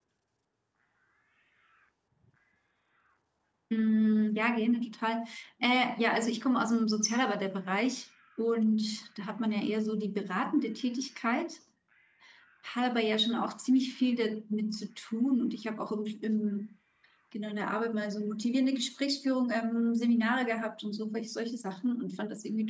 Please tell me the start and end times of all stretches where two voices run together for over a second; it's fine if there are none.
none

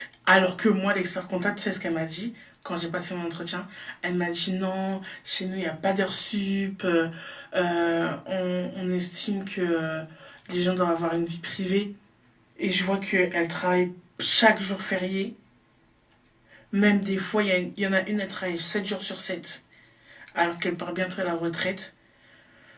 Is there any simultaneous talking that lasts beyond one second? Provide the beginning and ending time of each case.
none

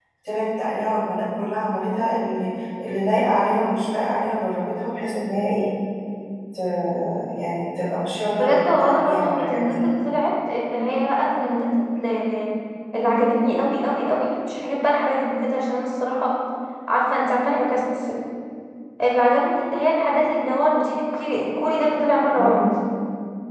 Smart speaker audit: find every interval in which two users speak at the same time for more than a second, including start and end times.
8.4-9.7

